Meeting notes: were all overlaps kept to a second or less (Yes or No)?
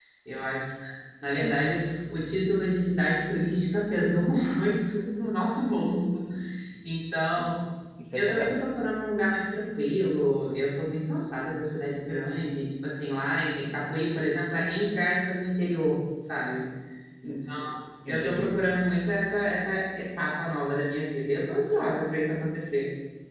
Yes